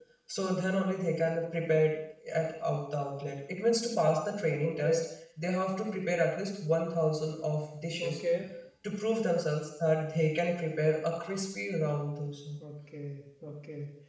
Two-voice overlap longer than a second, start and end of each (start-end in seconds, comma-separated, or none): none